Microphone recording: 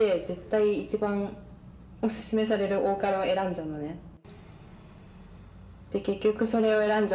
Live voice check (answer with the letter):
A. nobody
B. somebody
A